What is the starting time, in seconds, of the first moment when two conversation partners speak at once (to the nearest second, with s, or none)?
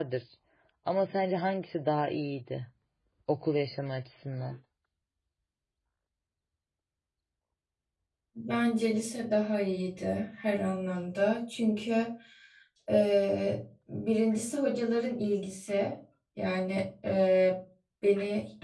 none